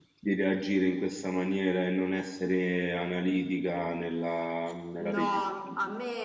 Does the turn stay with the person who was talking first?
No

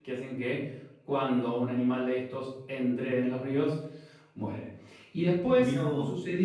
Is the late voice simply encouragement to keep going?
Yes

